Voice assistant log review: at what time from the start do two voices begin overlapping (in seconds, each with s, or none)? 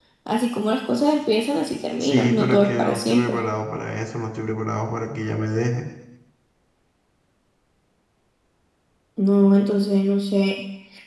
2.0 s